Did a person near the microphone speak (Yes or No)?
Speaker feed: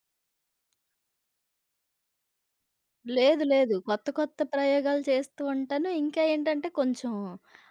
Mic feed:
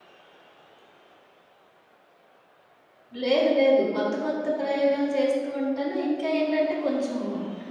No